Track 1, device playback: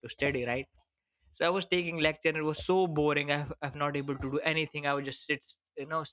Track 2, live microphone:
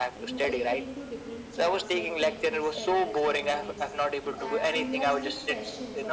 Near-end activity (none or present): present